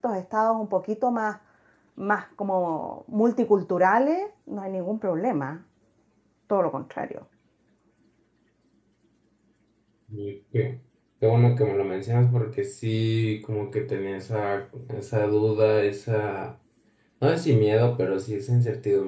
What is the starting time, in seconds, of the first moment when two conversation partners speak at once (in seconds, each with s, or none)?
none